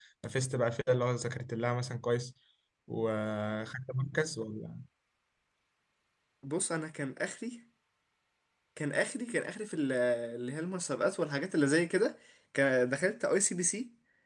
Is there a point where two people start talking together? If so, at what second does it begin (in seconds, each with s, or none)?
none